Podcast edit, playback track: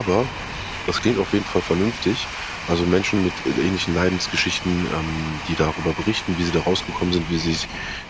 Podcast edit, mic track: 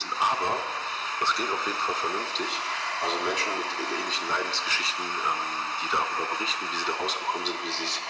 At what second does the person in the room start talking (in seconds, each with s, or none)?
none